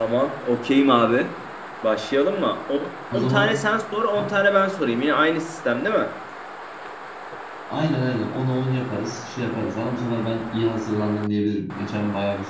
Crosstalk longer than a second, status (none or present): none